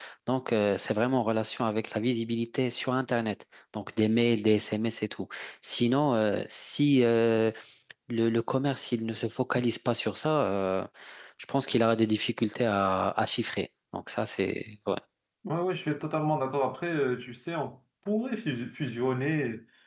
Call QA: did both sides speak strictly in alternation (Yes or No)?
Yes